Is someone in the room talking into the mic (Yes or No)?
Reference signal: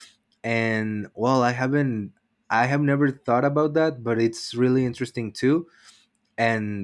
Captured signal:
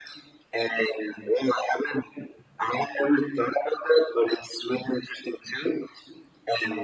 No